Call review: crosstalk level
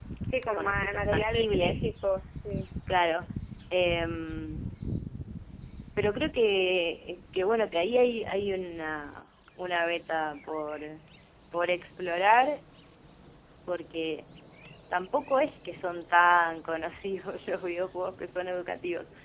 present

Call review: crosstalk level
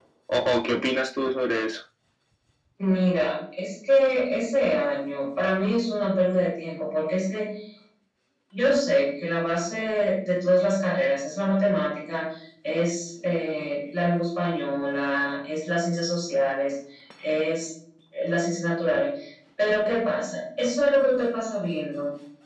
none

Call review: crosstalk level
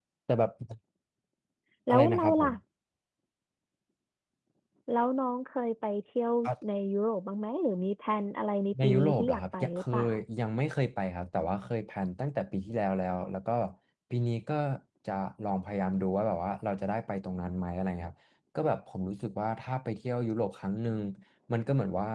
present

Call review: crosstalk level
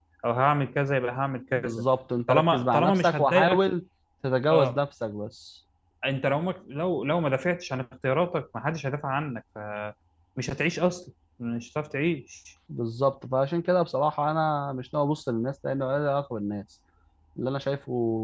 present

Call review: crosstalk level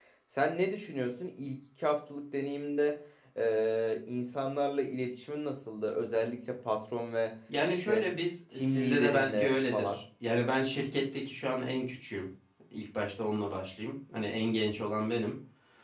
present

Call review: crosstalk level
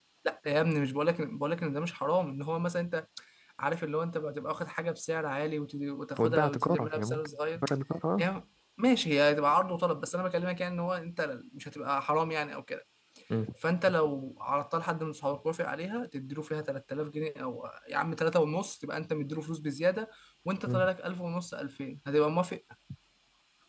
present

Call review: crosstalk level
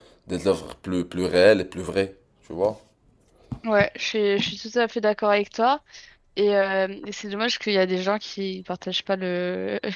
none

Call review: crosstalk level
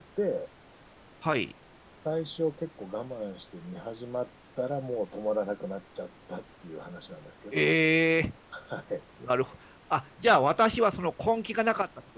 none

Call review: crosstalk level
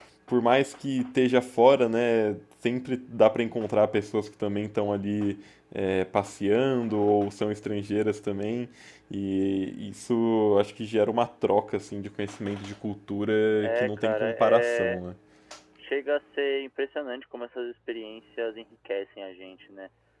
present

